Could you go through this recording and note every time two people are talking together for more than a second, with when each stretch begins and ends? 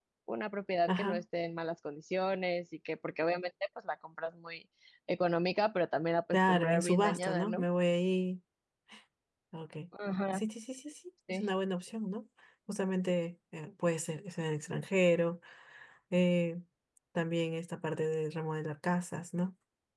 6.3-7.6

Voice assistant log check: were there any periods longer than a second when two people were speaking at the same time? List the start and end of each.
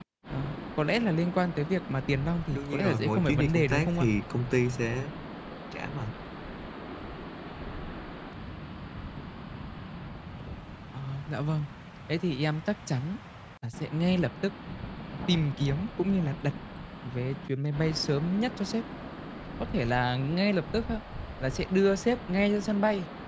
2.5-4.0

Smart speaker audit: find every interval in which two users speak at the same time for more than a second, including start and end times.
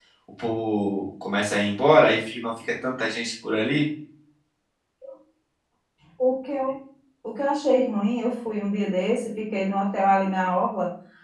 none

